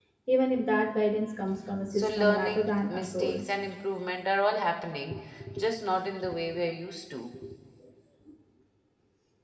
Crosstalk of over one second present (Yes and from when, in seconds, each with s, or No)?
Yes, from 1.9 s